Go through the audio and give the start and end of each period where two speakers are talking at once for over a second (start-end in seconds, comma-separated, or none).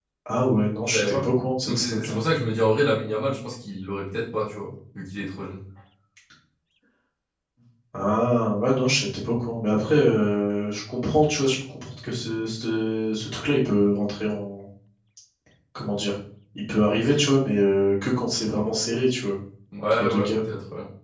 none